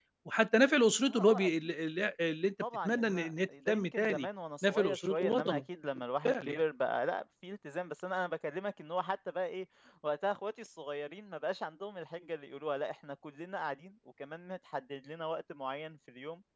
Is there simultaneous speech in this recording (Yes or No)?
Yes